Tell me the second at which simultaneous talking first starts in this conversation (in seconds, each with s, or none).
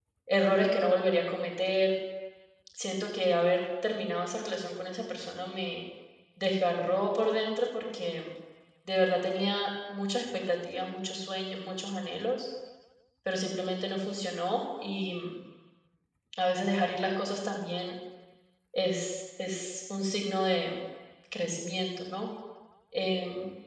none